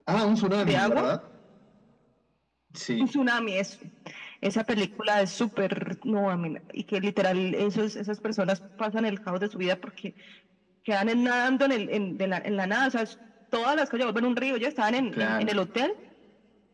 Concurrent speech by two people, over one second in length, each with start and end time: none

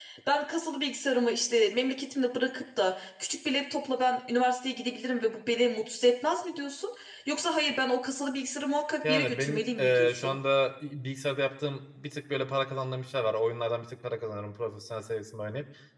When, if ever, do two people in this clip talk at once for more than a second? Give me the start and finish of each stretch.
9.1-10.4

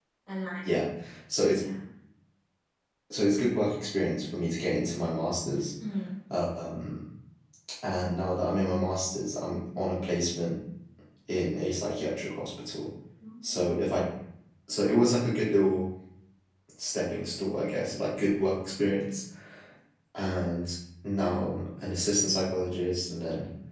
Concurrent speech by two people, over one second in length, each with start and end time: none

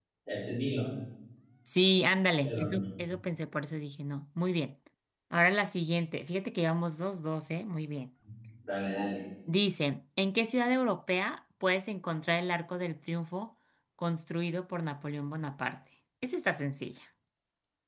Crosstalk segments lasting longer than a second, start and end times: none

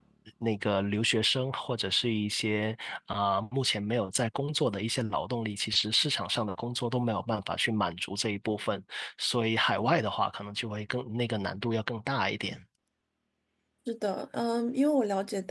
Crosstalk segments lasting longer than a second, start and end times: none

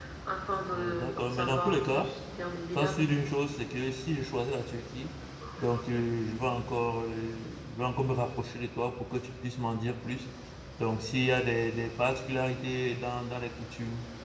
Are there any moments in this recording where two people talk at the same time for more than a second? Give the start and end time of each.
0.7-2.1

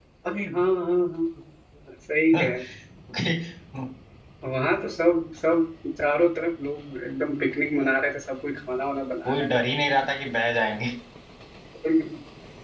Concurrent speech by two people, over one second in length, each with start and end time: none

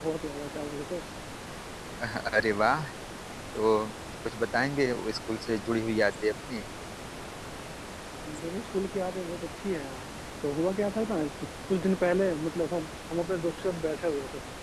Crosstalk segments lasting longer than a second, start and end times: none

